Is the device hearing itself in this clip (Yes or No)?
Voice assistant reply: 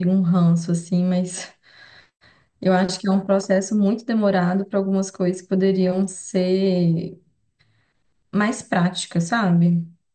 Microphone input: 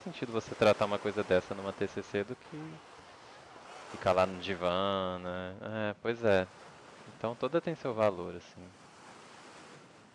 No